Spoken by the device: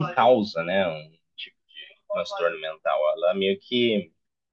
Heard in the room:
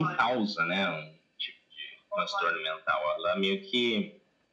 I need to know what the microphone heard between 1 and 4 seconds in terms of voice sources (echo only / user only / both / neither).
echo only